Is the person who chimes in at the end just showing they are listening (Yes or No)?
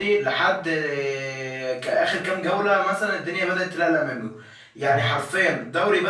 Yes